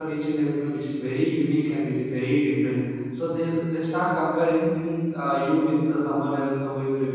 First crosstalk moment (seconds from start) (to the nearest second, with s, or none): none